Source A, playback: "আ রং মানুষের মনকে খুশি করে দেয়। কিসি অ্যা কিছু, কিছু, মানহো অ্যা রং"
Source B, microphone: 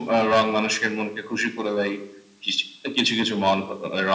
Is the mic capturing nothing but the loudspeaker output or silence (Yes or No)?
Yes